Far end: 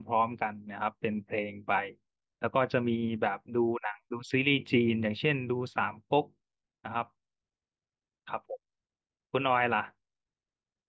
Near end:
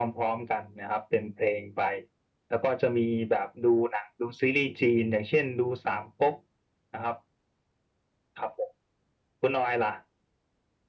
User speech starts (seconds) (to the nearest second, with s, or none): none